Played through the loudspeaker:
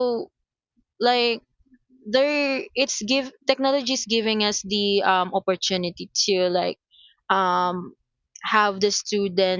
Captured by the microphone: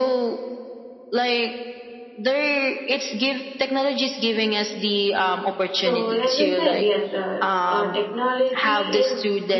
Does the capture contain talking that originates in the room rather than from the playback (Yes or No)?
Yes